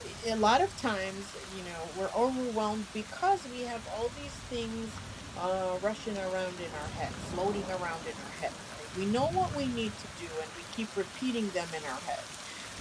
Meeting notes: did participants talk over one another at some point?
No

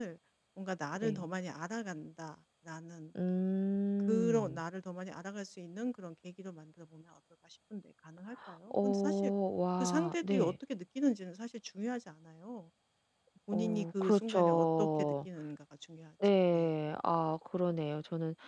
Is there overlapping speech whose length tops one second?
Yes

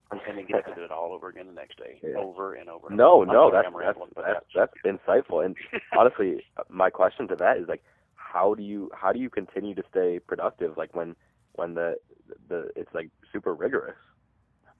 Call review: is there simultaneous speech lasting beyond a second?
Yes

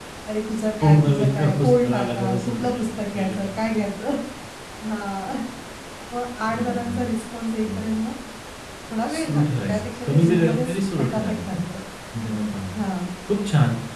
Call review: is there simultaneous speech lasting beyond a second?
Yes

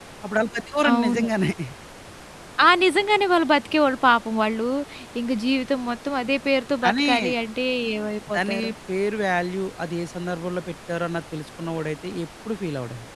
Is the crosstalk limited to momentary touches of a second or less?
Yes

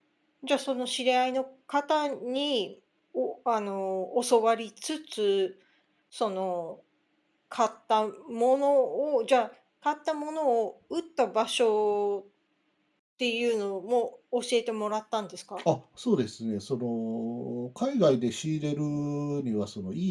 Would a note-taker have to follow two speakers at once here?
No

